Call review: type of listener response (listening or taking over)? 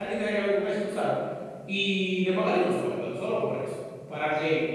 listening